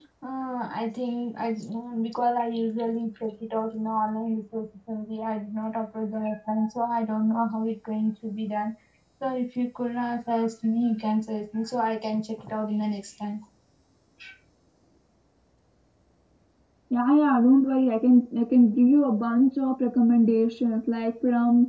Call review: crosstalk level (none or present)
none